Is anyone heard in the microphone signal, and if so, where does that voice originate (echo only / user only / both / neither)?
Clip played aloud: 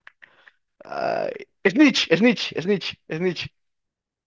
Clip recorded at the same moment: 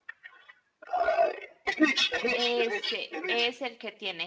both